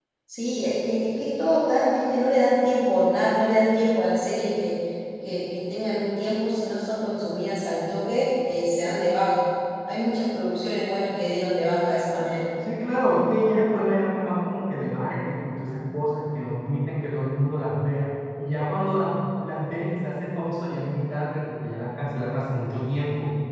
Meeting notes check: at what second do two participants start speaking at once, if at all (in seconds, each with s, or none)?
none